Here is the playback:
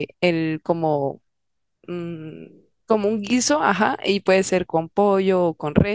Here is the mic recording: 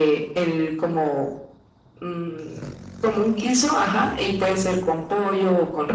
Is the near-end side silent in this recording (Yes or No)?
Yes